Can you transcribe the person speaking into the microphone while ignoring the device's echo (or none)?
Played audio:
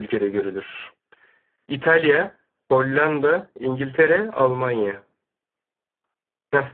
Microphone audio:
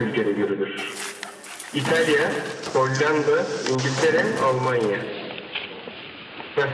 none